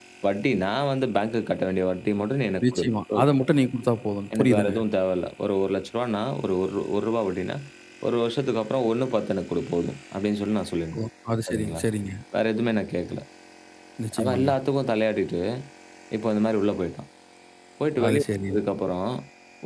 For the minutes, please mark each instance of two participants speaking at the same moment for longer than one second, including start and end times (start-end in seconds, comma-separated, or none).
none